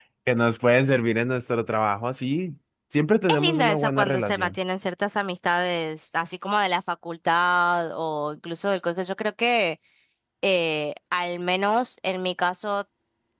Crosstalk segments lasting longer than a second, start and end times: 3.3-4.5

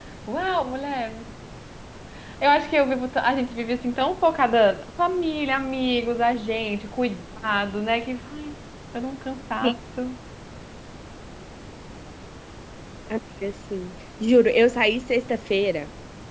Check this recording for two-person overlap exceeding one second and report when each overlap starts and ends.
none

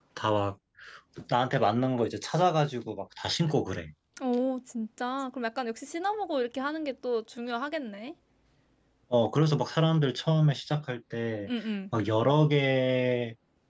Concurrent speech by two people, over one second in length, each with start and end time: none

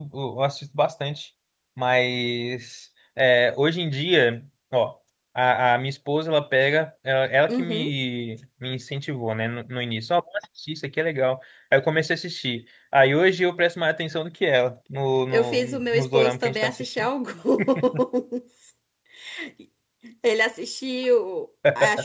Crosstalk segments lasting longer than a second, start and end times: 15.3-17.1

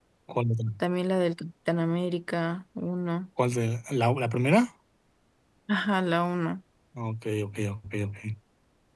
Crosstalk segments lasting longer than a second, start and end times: none

